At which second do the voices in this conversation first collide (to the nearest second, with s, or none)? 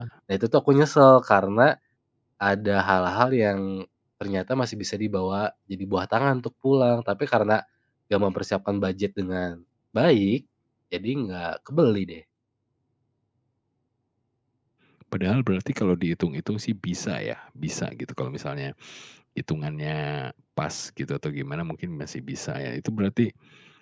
none